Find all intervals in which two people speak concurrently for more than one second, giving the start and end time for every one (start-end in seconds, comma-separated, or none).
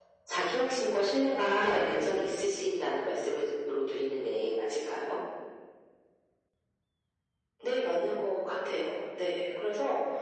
none